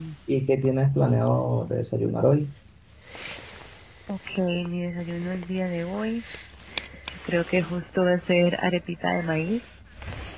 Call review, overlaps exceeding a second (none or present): none